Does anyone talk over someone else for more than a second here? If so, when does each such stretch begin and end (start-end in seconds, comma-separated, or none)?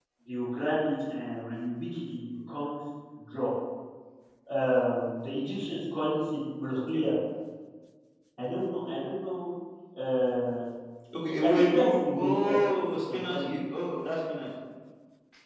11.3-12.7